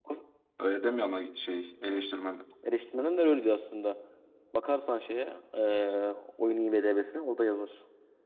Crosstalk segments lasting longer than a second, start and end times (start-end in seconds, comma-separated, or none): none